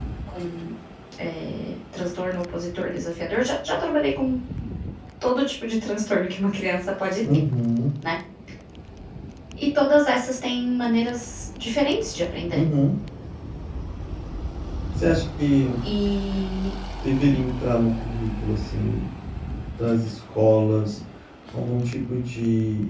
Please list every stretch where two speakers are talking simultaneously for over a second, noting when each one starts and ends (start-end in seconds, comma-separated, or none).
none